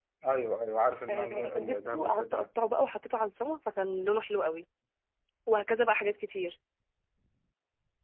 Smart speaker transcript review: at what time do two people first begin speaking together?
1.1 s

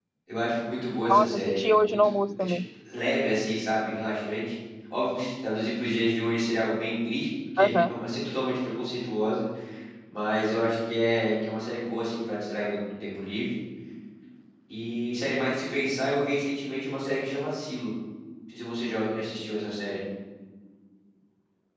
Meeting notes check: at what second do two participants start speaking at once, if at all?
1.1 s

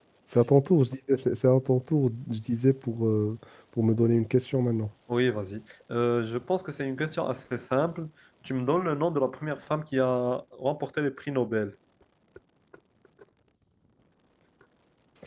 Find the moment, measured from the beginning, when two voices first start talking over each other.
none

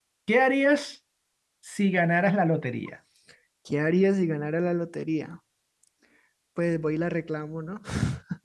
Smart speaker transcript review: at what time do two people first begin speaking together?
none

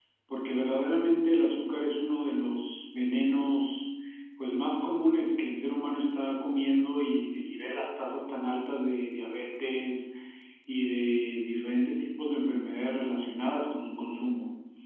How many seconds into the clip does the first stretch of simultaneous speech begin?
none

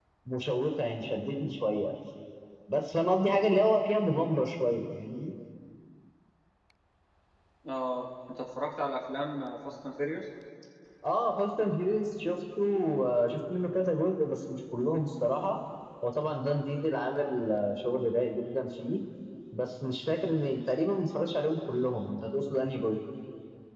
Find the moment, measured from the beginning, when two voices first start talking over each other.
none

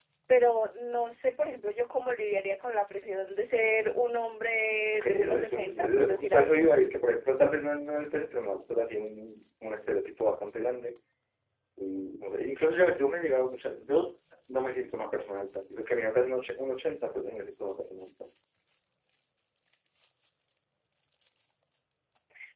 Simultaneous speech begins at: 4.9 s

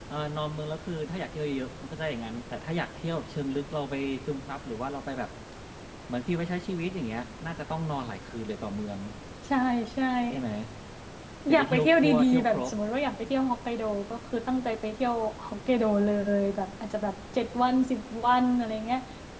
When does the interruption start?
11.5 s

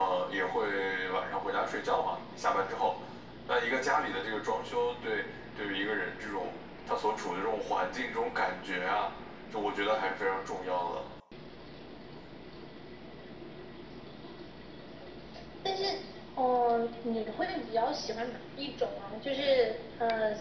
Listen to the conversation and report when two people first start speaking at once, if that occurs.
none

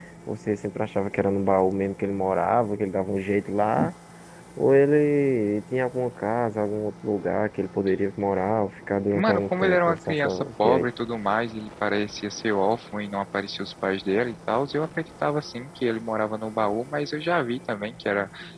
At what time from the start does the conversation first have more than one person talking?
9.1 s

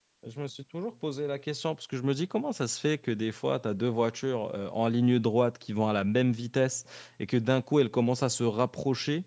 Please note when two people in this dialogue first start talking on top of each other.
none

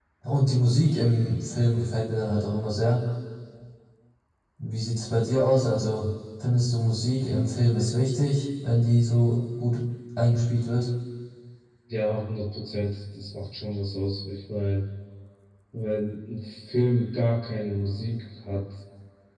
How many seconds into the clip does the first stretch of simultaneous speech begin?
none

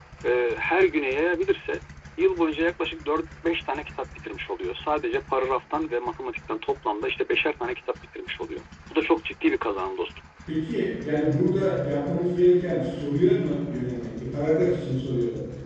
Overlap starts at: none

